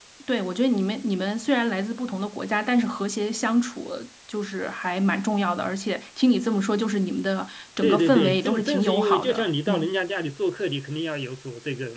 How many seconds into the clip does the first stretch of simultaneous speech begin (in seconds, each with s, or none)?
7.8 s